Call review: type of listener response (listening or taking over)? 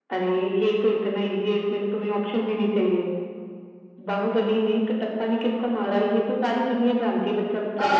taking over